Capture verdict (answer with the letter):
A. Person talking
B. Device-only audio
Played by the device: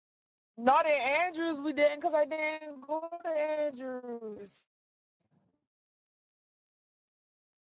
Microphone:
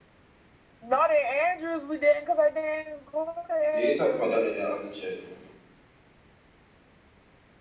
A